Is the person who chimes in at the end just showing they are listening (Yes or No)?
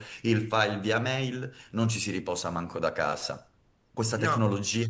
Yes